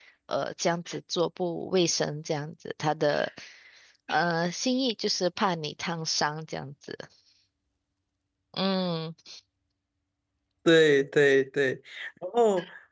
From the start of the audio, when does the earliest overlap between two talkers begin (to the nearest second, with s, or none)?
none